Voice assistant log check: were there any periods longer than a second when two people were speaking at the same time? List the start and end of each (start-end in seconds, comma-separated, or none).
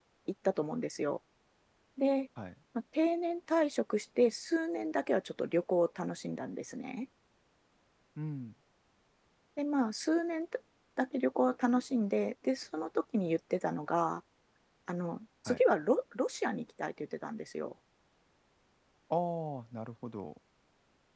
none